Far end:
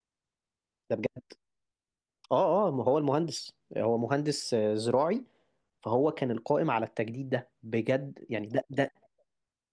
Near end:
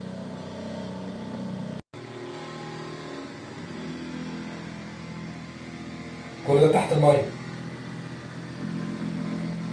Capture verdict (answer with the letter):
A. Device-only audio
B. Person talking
B